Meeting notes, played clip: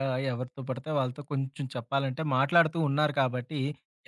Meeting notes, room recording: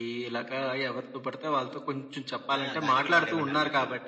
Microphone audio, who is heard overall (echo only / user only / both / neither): both